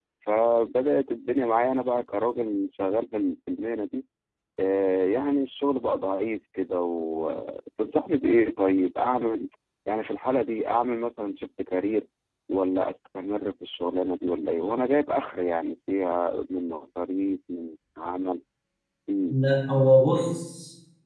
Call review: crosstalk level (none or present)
none